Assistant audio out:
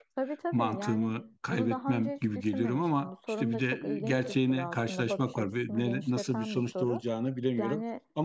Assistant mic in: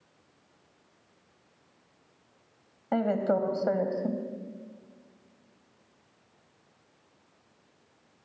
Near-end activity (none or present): present